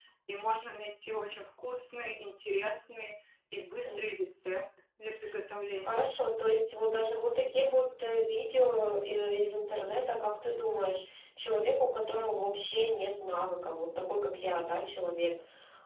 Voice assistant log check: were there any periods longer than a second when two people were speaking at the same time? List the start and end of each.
none

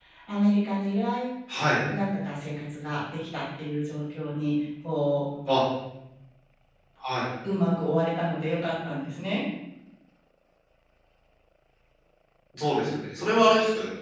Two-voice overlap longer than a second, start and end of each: none

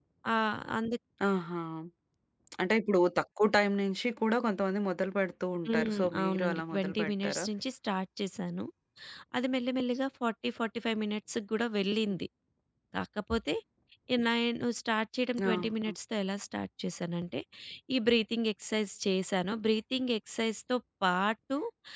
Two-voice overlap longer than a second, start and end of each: 5.7-7.4

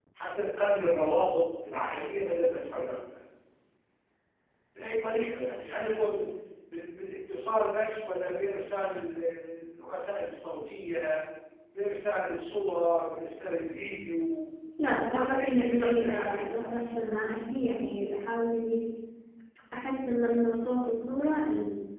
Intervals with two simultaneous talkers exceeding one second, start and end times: 15.1-17.0

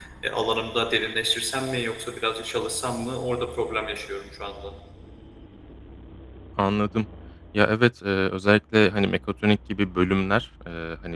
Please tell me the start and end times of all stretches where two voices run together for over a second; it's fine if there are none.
none

